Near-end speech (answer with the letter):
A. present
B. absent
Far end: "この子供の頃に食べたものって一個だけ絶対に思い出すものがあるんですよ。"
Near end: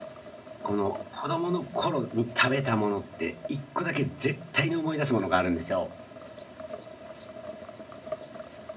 B